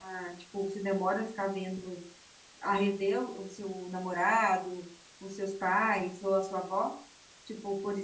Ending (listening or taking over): taking over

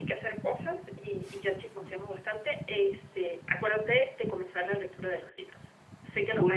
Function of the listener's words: taking over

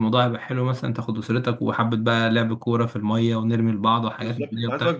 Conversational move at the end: taking over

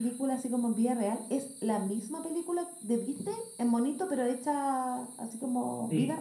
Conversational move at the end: taking over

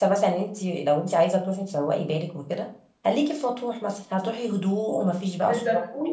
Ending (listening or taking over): taking over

